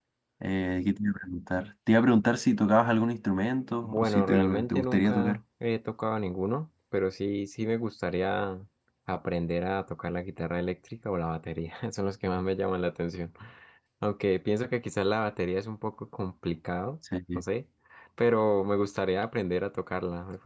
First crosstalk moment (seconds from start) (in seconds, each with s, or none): 3.8 s